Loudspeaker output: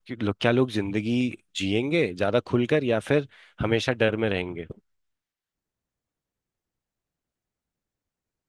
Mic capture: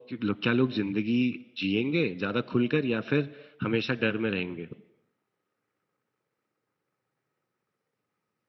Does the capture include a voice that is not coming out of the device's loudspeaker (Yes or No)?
No